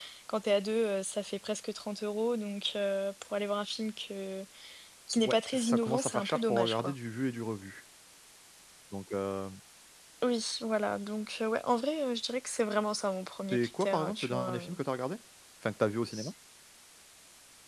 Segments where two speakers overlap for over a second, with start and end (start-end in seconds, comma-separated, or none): 5.2-6.9, 13.5-14.8